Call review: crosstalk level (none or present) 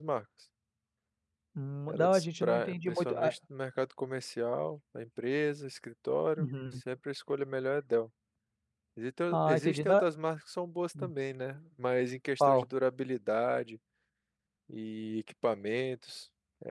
present